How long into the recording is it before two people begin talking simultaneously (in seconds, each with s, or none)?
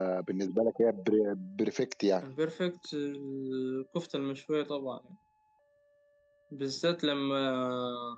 none